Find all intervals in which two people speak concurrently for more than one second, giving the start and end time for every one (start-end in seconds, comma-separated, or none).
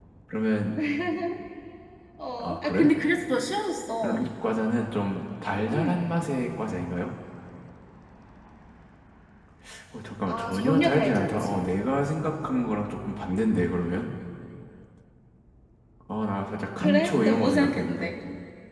10.3-11.6, 16.8-18.1